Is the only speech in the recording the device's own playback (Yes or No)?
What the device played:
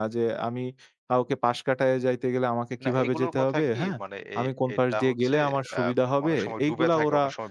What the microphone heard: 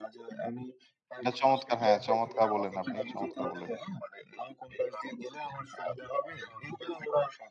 No